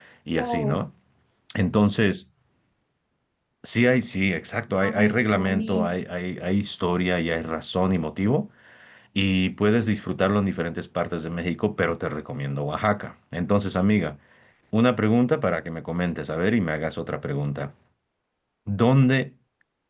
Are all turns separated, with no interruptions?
No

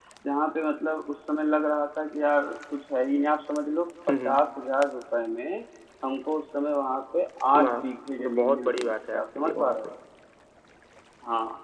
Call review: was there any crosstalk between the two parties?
Yes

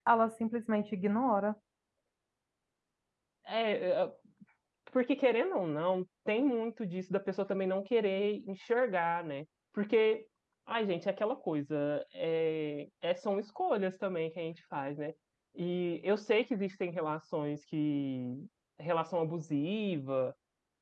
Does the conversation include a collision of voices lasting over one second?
No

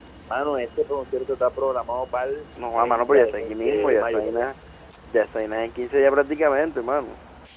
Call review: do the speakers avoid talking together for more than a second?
No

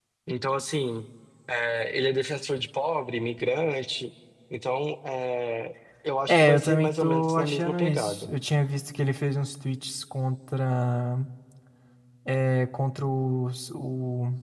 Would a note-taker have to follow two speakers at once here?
Yes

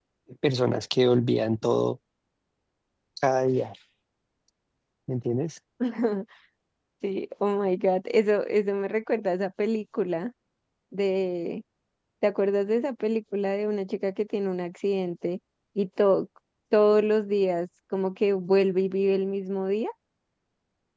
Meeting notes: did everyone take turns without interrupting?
Yes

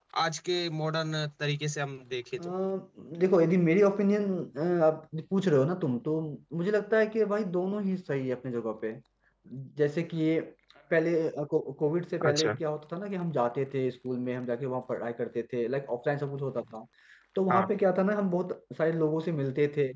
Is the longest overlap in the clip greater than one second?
No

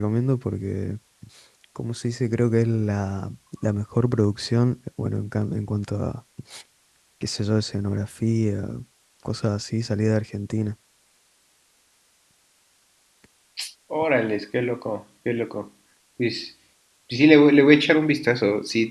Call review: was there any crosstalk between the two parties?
No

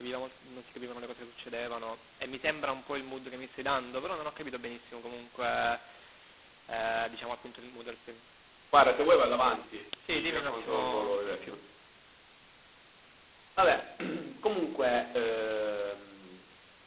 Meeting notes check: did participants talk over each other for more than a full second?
Yes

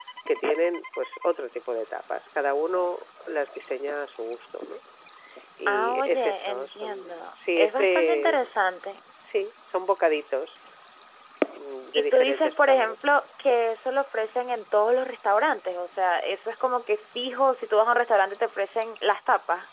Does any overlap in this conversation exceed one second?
Yes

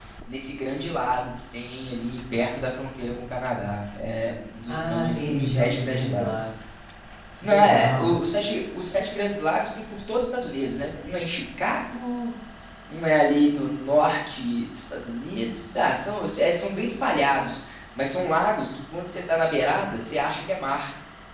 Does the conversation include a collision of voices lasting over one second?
Yes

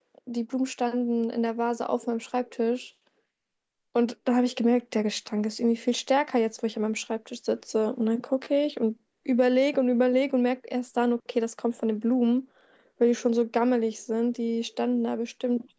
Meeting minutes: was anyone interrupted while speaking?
No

